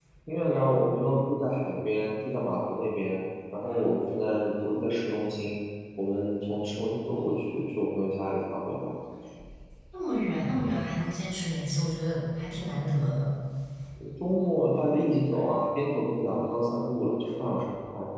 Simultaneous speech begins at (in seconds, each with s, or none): none